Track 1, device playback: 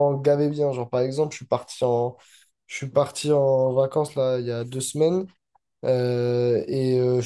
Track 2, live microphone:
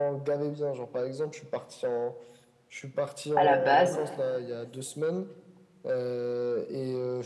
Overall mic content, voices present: both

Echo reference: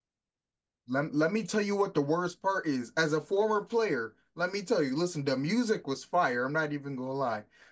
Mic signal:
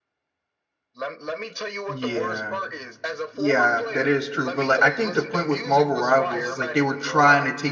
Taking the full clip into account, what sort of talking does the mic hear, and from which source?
both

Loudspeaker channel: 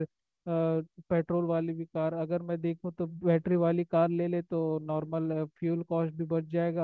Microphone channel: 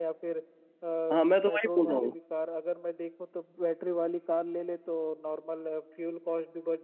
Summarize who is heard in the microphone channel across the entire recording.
both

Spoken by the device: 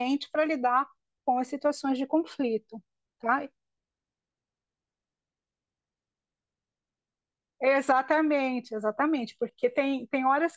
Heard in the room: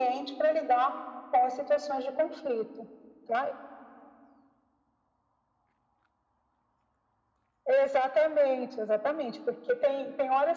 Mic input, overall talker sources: echo only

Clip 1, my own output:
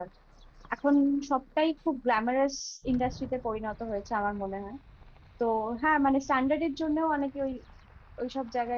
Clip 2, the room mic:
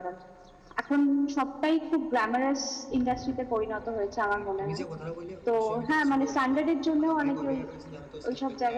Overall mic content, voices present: both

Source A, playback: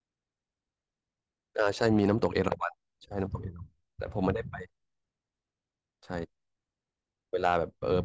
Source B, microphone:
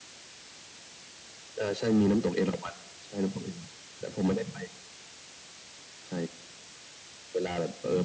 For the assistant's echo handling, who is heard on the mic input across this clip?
echo only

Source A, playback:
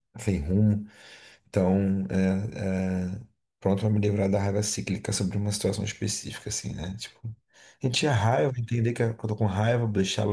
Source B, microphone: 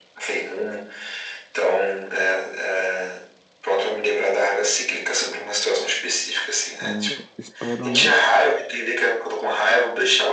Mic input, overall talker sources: both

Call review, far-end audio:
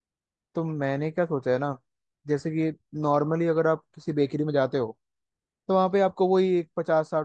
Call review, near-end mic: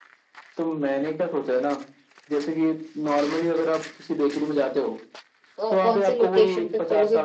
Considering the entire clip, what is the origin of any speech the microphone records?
both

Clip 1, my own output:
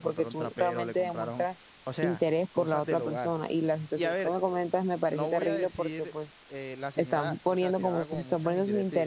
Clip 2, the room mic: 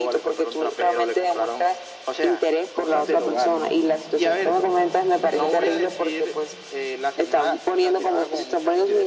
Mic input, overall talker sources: both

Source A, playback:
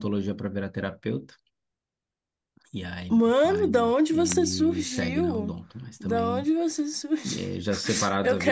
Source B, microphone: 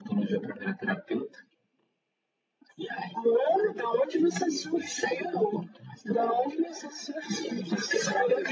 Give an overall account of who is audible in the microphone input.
echo only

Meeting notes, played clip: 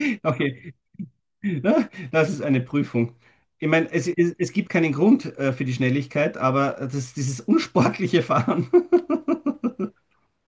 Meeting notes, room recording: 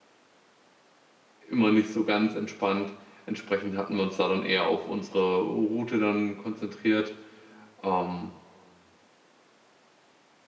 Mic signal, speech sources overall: user only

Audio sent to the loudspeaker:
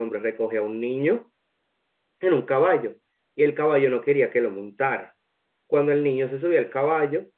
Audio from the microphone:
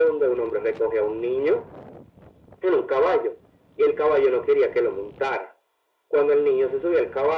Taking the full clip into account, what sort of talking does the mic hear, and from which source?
echo only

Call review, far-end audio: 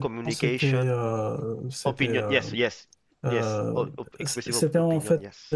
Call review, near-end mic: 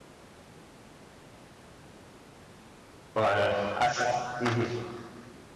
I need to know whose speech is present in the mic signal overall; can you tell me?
user only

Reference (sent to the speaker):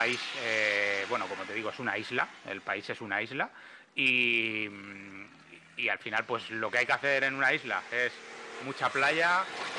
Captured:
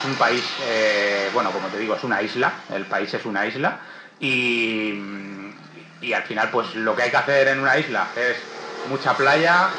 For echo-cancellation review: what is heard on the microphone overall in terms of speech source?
echo only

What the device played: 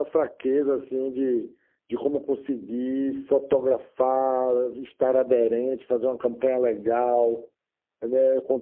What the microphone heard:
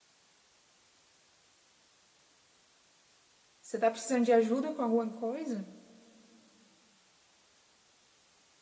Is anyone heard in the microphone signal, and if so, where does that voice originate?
user only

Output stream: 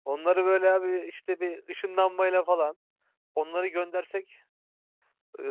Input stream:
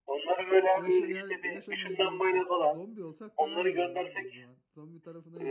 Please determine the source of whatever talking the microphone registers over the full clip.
both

